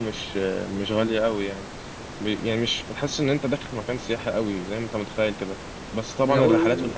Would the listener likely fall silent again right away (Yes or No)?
Yes